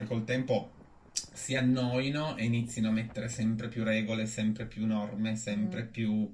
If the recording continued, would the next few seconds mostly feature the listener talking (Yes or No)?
No